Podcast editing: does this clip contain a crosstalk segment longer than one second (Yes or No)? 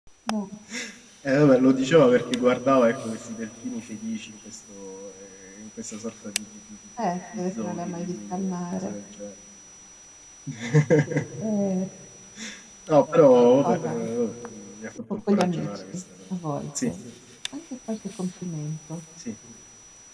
Yes